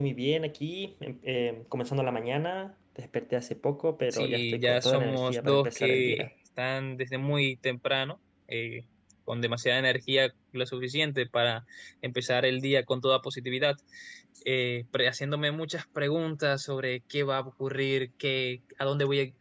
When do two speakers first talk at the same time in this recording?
4 s

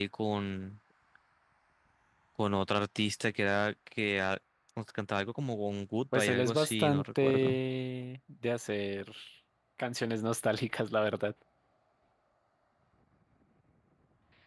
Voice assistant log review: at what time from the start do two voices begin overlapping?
6 s

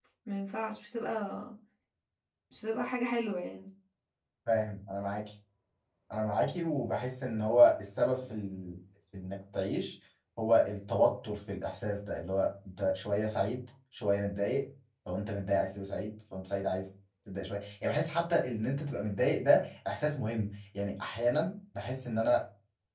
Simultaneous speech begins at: none

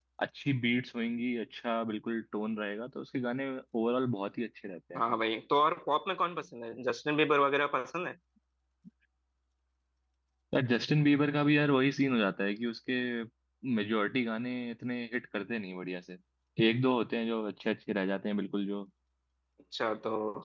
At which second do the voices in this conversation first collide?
none

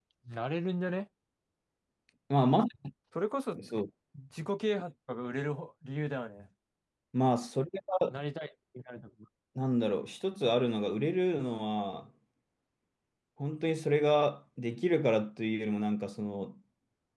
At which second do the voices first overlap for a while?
none

